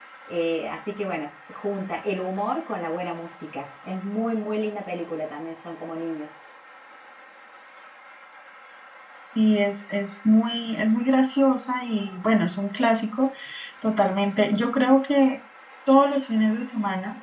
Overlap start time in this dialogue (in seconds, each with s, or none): none